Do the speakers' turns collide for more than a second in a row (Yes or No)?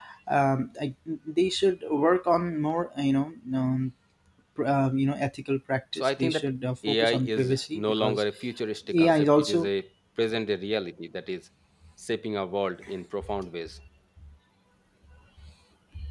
Yes